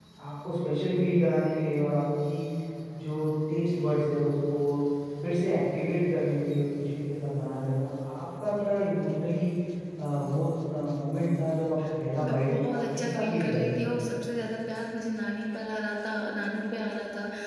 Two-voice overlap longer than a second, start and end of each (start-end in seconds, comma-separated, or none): 12.2-14.1